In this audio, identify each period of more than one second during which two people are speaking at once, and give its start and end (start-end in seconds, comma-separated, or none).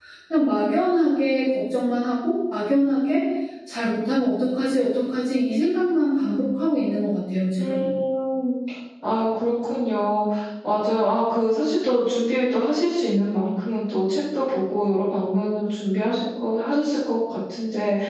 none